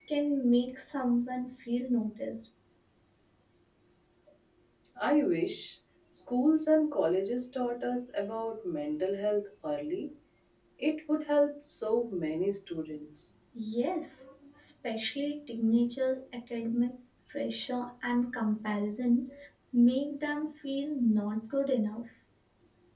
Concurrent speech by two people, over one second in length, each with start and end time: none

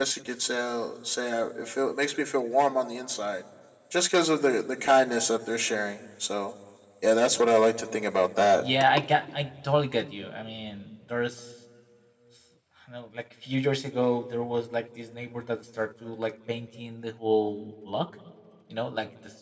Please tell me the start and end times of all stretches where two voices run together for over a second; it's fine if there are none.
none

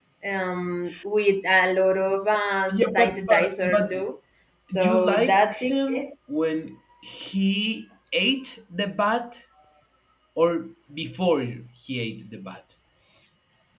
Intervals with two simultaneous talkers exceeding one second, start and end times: 2.7-4.0, 4.8-6.1

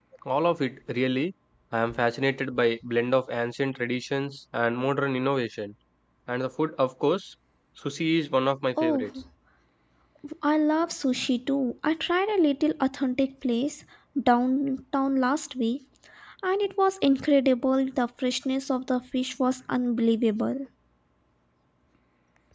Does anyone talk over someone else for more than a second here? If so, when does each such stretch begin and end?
none

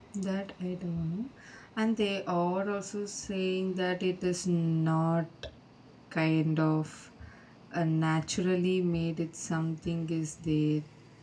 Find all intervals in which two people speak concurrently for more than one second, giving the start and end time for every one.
none

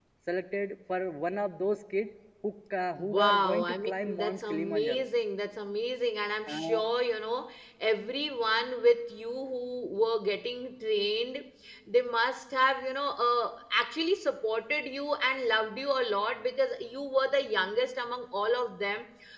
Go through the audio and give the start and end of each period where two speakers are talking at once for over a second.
3.0-5.0

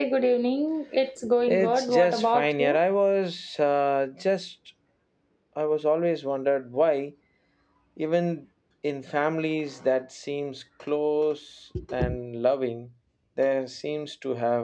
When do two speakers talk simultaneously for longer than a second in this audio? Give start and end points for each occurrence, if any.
1.5-2.8

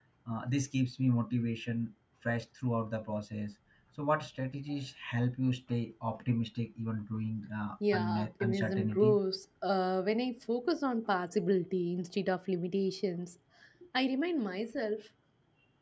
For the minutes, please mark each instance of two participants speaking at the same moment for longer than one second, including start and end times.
7.9-9.2

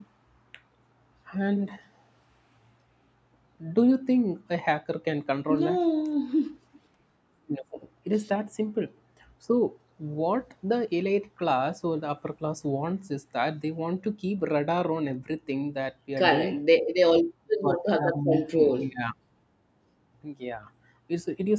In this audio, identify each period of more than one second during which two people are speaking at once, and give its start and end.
17.6-18.9

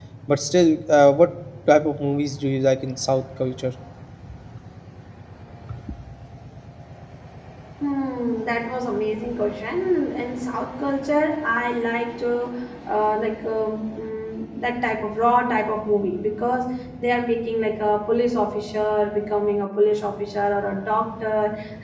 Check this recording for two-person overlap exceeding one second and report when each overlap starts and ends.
none

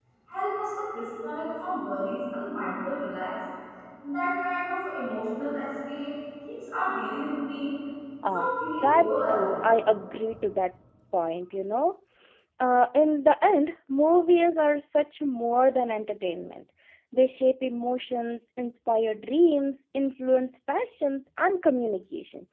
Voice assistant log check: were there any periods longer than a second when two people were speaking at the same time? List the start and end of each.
8.3-9.6

